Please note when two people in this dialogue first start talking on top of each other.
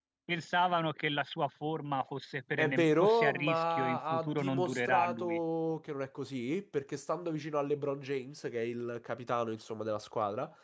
2.6 s

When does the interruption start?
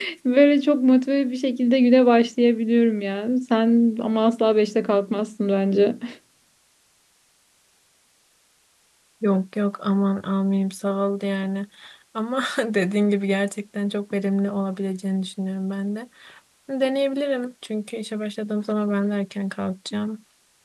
none

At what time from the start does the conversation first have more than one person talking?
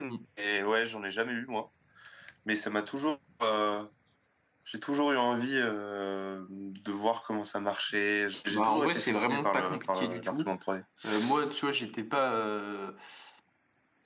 8.5 s

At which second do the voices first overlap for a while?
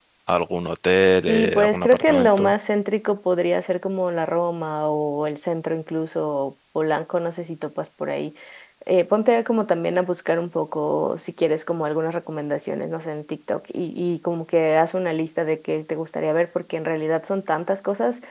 1.3 s

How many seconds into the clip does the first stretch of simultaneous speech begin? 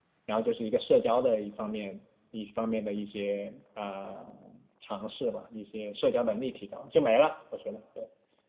none

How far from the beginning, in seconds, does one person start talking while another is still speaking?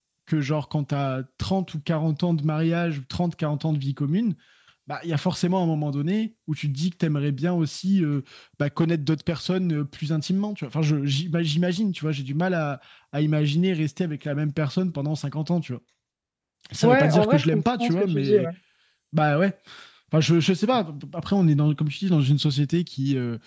16.8 s

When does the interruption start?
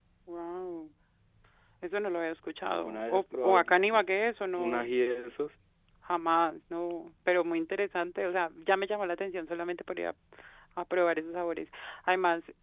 2.7 s

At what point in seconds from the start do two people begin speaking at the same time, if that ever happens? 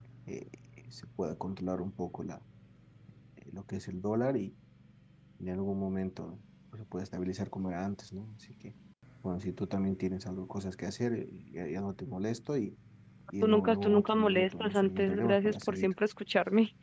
13.4 s

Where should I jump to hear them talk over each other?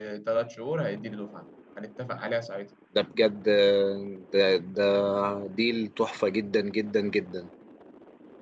none

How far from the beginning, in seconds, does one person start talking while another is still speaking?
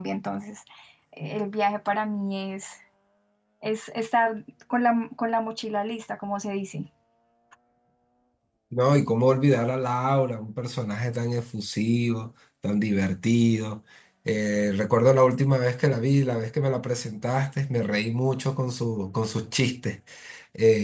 none

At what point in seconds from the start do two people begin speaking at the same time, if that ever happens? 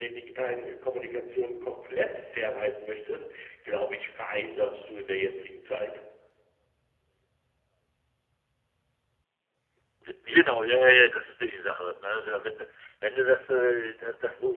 none

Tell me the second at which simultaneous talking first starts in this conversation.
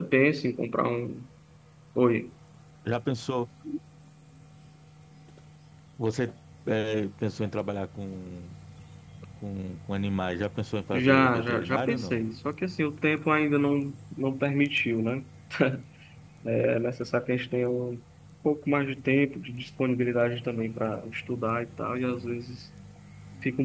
10.9 s

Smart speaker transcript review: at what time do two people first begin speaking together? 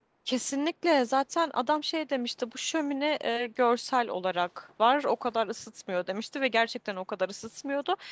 none

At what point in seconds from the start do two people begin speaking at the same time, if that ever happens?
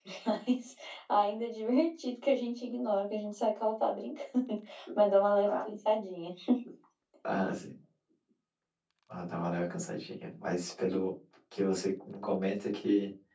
none

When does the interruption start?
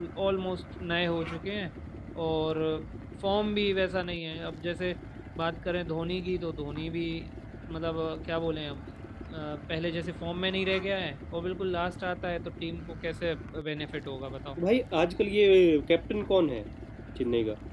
none

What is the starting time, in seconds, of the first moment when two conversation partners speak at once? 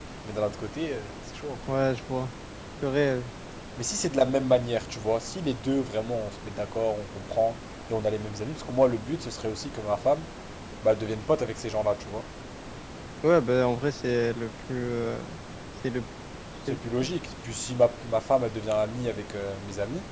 none

